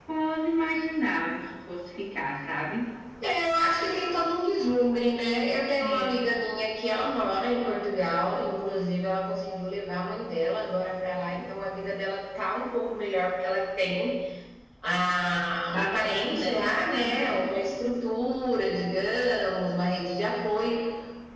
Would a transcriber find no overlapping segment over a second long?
No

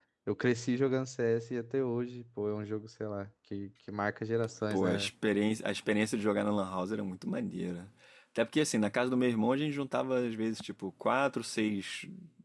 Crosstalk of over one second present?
No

